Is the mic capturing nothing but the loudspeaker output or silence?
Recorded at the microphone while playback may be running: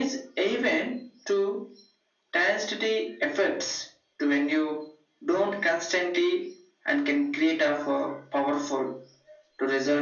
Yes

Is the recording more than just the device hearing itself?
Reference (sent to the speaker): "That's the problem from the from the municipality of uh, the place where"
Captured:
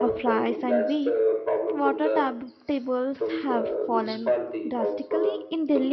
Yes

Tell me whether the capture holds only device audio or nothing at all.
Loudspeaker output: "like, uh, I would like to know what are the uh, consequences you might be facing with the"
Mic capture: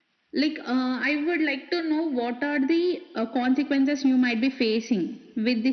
Yes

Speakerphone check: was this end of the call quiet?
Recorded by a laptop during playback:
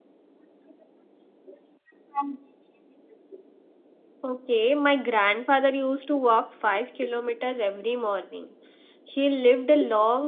No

